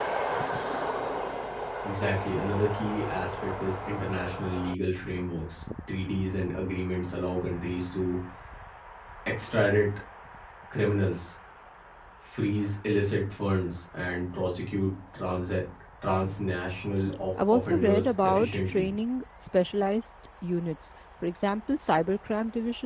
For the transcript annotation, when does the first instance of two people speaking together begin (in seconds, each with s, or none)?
17.4 s